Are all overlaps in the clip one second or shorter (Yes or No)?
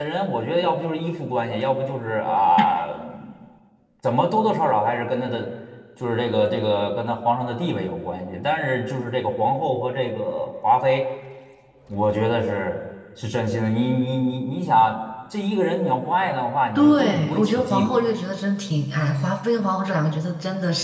No